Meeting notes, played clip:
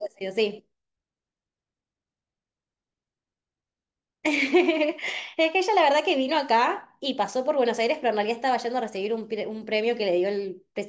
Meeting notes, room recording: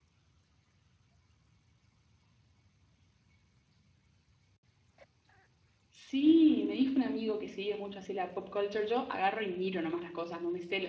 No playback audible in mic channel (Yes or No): Yes